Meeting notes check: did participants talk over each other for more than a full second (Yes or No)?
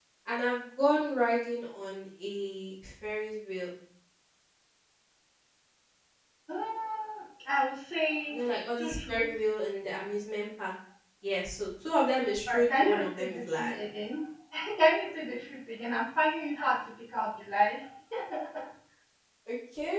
Yes